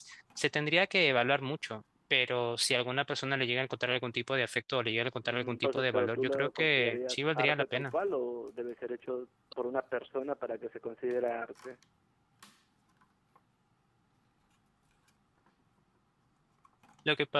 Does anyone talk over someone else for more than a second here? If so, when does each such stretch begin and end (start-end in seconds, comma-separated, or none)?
5.2-7.9